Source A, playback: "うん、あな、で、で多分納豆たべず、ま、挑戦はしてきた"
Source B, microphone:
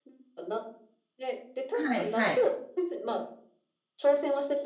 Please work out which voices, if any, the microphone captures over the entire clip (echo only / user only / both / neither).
both